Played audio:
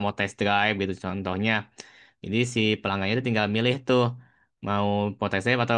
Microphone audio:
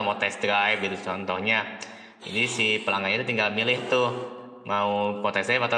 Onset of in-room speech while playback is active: none

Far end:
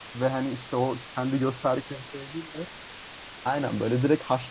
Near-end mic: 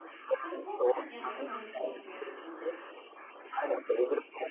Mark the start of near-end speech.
0.4 s

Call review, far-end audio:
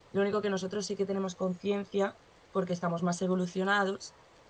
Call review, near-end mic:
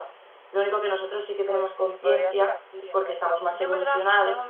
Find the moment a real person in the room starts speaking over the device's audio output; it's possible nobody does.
1.4 s

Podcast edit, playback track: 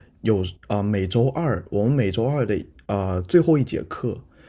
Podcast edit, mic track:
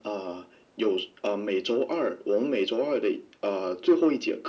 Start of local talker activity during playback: none

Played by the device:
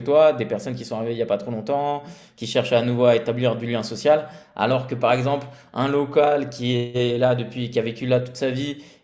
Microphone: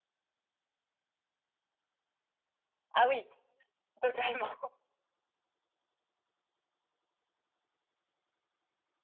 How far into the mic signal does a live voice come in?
2.9 s

